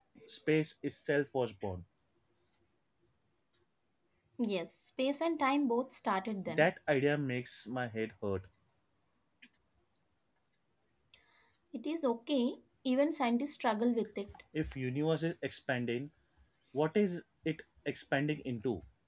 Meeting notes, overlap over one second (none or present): none